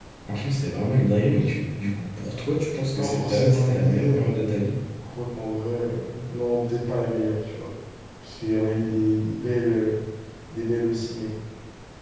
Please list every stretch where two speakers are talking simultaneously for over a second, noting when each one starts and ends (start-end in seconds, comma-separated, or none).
3.0-4.3